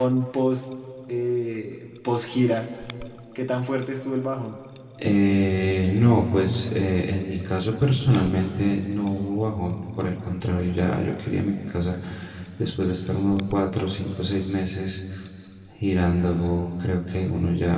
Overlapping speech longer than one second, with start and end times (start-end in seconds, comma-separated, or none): none